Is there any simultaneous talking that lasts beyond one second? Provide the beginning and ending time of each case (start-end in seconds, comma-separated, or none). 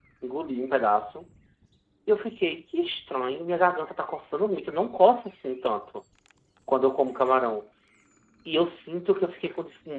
none